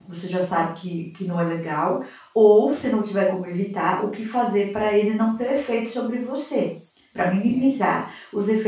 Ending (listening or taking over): listening